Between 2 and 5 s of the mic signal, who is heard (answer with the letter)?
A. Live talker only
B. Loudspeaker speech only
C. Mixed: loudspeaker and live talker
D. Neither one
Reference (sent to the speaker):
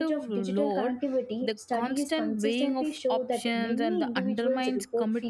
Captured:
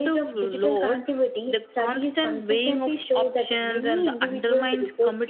B